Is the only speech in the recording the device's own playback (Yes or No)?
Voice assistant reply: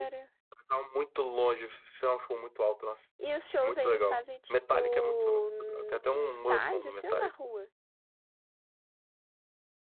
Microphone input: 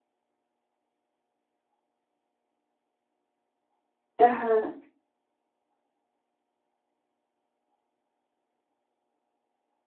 No